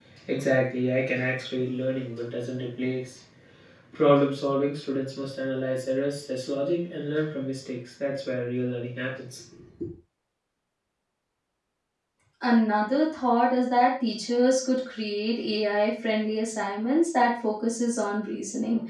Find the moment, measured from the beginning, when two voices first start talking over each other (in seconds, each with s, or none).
none